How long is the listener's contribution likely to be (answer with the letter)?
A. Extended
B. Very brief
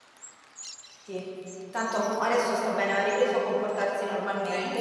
B